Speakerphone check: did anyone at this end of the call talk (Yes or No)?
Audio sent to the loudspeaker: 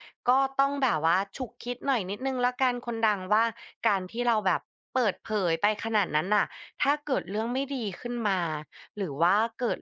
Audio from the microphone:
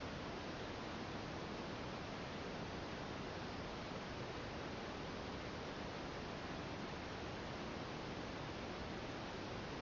No